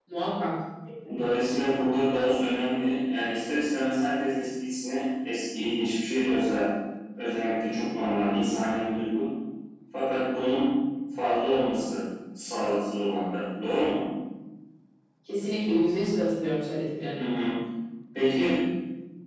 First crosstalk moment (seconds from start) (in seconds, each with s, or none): none